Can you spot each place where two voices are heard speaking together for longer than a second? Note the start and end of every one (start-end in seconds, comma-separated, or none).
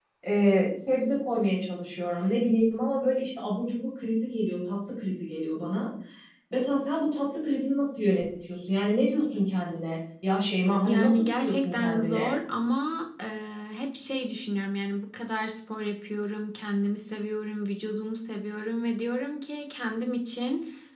10.8-12.3